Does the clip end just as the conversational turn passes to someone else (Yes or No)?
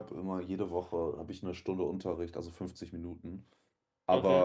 No